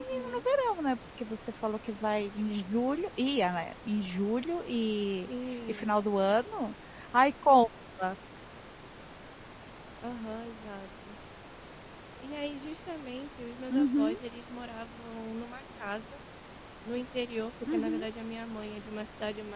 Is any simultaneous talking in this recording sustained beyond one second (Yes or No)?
No